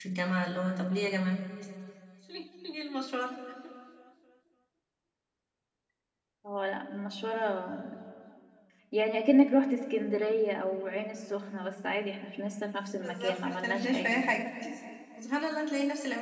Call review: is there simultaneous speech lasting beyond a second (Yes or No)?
Yes